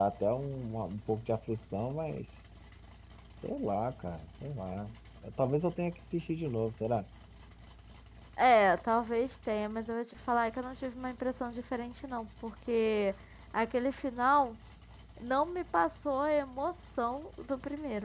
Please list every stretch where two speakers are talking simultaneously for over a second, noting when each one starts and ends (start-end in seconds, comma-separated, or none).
none